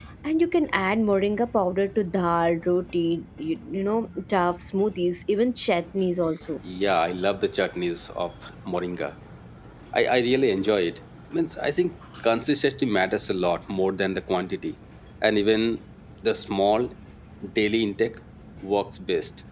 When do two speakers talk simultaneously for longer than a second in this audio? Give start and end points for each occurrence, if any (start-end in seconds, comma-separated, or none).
none